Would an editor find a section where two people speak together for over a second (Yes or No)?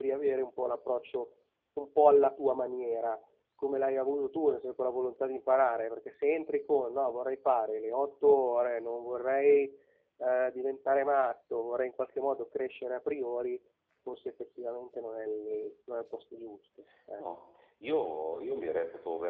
No